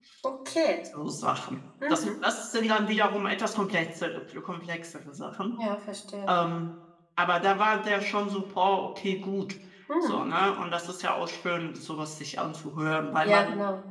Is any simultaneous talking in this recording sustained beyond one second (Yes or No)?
No